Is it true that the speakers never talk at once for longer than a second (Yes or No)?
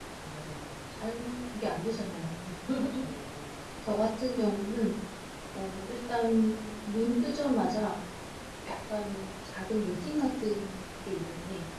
Yes